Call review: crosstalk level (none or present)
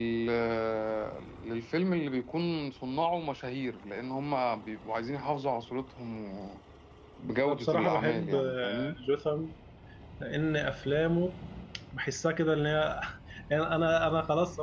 present